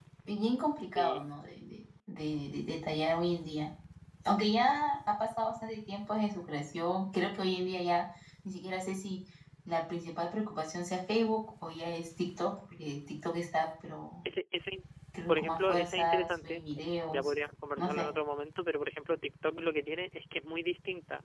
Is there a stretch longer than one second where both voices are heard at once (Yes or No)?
Yes